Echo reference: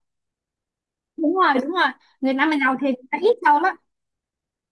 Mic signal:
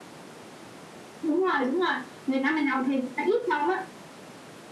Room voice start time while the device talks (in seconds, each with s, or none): none